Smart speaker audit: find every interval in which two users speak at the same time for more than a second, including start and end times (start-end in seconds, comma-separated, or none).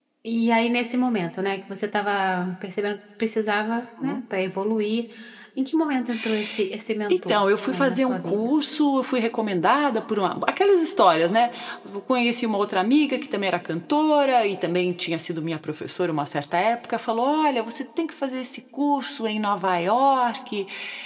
7.1-8.5